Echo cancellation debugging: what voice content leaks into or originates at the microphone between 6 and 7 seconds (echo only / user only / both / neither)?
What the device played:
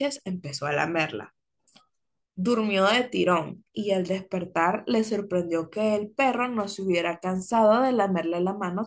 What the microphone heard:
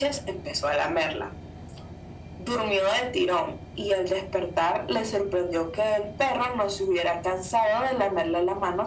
echo only